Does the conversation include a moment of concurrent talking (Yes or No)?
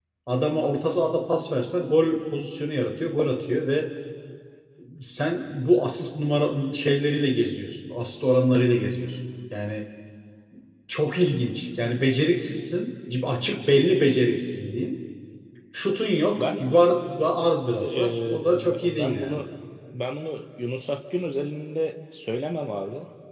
Yes